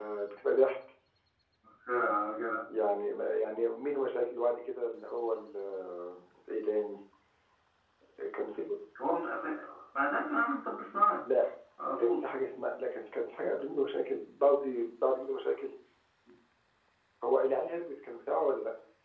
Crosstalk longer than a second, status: none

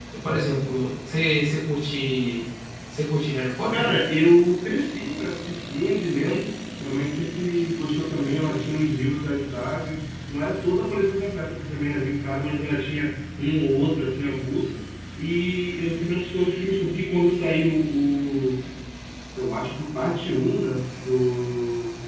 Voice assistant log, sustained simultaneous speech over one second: none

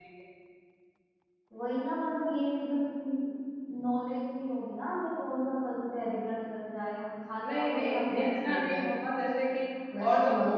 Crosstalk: present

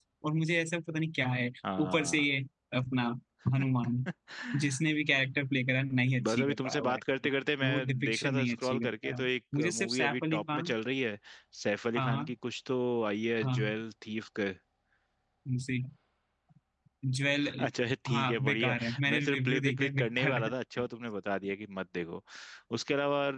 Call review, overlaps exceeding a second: present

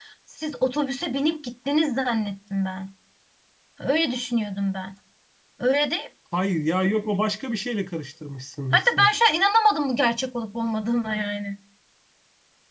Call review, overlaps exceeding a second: none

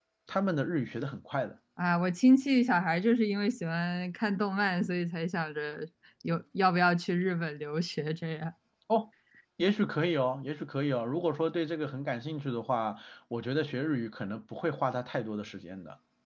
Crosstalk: none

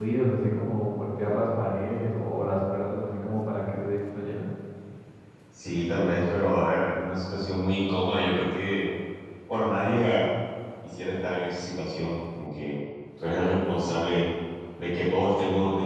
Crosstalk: none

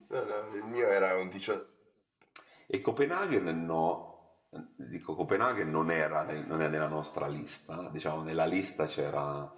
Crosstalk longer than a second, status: none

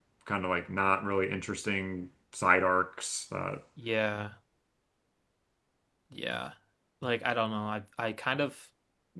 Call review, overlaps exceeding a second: none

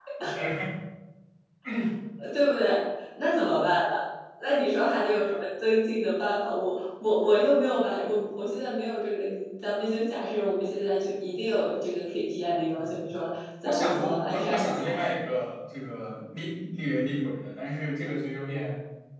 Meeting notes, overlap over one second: present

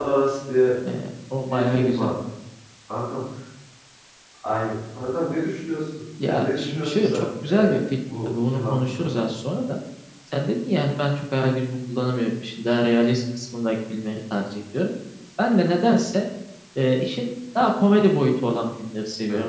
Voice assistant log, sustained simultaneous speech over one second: present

